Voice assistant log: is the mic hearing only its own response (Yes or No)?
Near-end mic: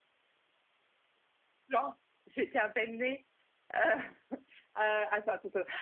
No